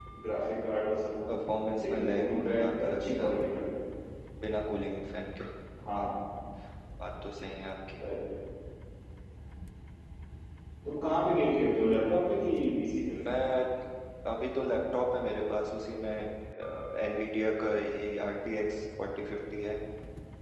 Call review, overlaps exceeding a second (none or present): present